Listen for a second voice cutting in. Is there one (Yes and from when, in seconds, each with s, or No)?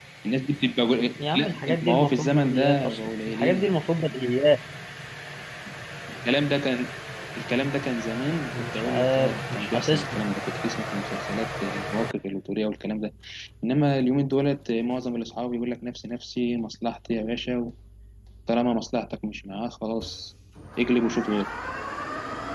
Yes, from 1.2 s